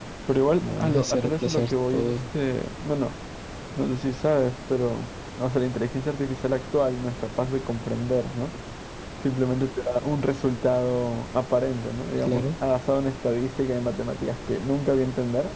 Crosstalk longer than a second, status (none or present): present